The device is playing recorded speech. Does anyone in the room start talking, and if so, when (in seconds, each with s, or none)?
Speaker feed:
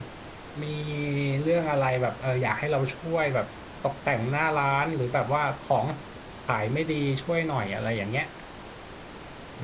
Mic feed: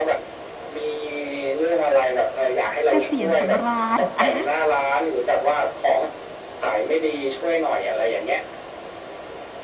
2.9 s